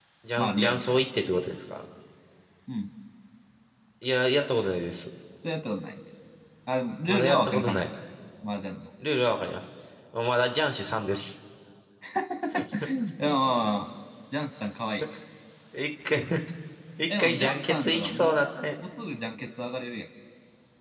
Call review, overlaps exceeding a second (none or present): present